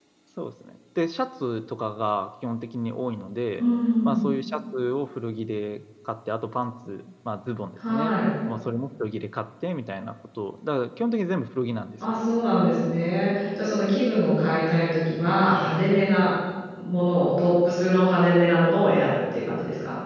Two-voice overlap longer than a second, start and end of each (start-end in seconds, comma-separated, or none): none